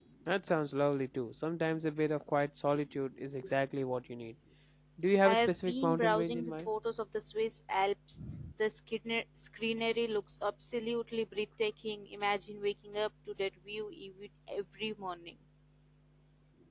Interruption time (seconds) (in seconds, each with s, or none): 5.2 s